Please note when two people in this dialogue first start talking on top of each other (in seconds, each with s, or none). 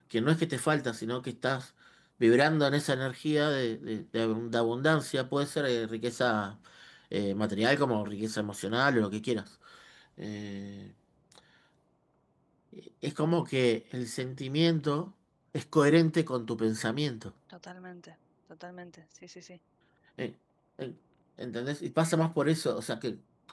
none